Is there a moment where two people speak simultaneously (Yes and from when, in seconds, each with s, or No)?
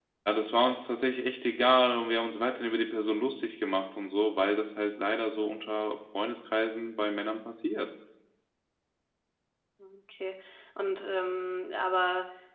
No